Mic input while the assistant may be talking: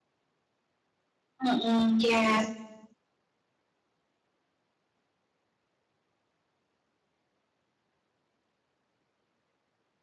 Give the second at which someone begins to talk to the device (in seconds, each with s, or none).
1.4 s